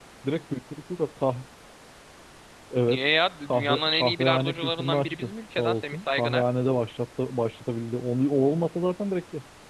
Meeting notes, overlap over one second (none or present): present